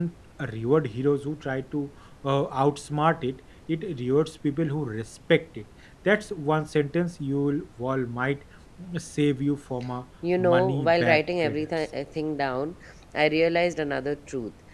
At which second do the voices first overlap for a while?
10.2 s

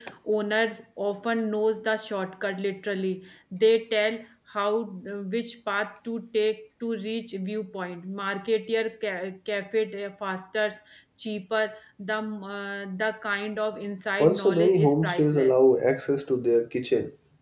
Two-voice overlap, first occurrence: 14.2 s

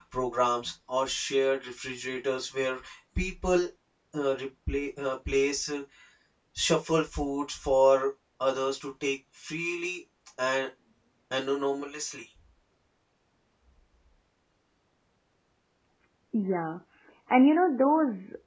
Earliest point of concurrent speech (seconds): none

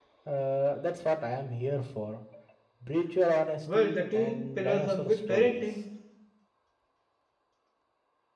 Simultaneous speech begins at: 3.7 s

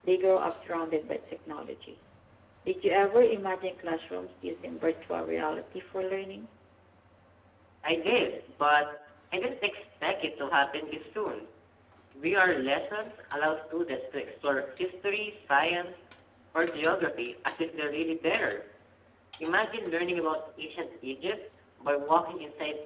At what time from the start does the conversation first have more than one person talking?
none

